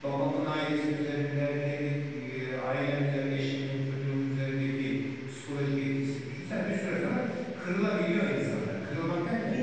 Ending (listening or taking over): listening